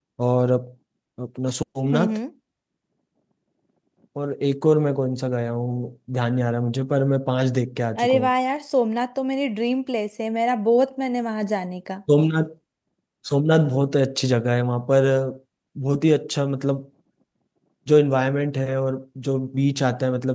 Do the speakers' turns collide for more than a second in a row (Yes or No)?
No